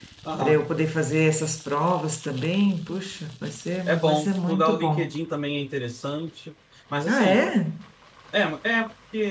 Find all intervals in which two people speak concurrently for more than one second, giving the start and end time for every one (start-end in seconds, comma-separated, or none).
3.9-5.1